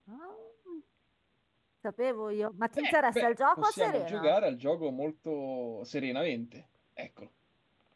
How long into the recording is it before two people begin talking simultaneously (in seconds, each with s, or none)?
2.8 s